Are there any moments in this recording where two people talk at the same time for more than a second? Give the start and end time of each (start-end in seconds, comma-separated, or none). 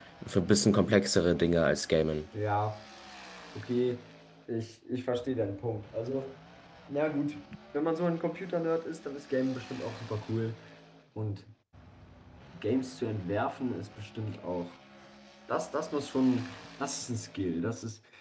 none